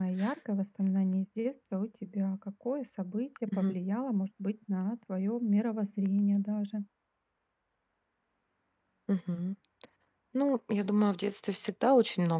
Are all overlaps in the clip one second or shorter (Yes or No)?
Yes